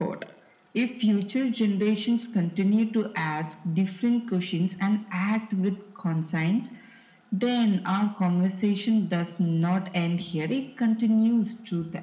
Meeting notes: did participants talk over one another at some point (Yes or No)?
No